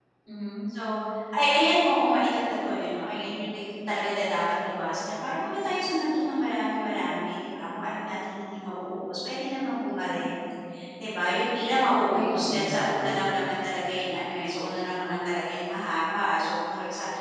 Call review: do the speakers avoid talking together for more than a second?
No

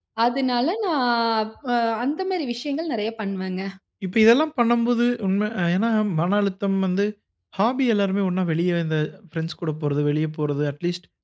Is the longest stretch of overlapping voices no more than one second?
Yes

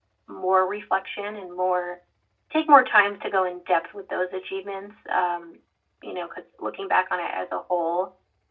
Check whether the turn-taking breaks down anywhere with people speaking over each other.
No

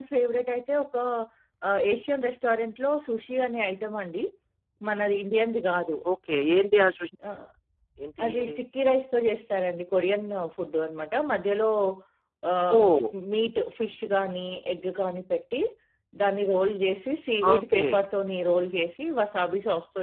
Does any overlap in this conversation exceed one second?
No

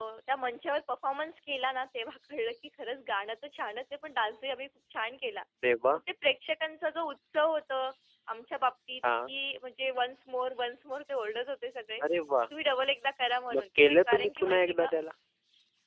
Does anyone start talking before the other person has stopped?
Yes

